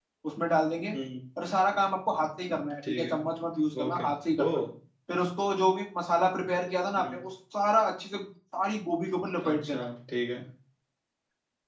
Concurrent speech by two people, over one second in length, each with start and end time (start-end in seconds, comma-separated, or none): none